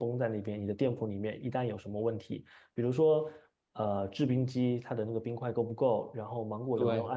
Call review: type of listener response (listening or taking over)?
listening